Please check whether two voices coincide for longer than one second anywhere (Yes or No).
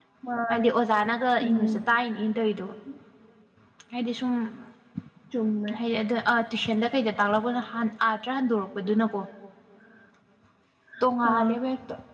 No